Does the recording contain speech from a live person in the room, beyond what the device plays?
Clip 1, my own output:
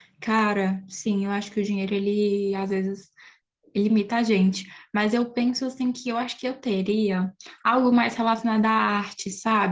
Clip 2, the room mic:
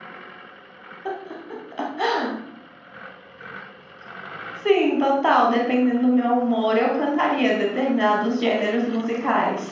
Yes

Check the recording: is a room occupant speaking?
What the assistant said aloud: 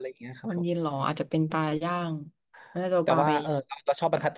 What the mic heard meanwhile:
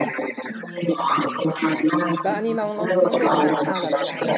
Yes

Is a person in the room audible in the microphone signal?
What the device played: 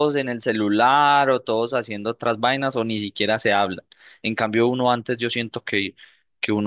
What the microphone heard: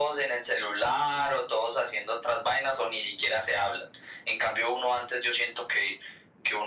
No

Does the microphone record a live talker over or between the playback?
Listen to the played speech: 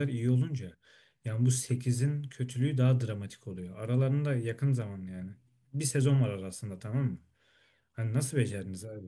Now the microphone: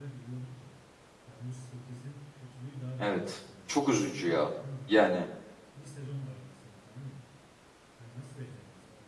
Yes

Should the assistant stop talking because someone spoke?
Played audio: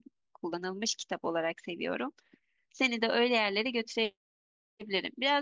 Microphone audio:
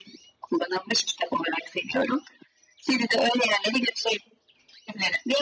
No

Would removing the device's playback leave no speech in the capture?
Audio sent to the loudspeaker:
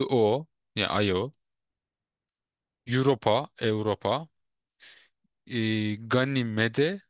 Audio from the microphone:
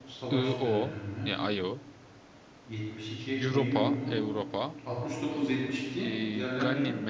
No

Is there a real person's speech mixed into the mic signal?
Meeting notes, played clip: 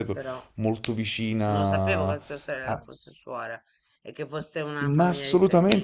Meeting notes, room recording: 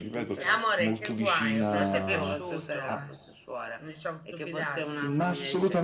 Yes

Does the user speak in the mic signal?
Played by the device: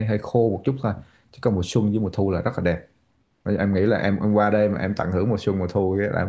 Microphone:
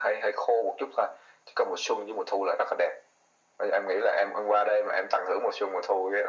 No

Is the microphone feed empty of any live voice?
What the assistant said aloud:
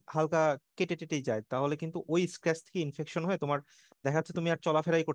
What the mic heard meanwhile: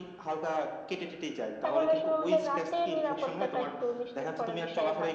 No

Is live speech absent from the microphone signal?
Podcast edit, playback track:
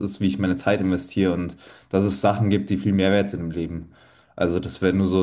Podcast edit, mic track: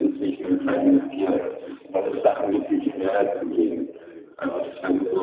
Yes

